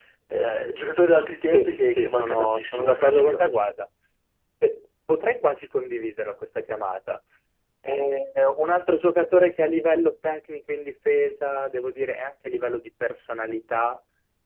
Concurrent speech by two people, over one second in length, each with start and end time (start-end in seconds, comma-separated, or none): 1.5-3.6